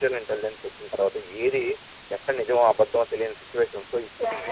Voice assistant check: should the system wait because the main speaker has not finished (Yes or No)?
No